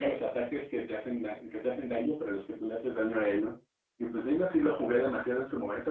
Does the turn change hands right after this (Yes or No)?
No